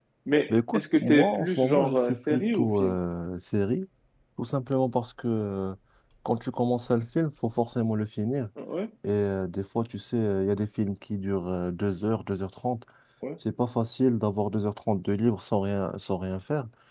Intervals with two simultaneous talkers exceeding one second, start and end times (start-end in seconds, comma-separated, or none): 0.5-3.0